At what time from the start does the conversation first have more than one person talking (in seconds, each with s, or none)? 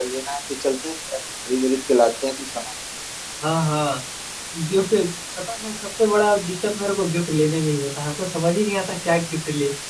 none